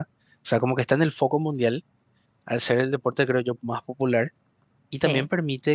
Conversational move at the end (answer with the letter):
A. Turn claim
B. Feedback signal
B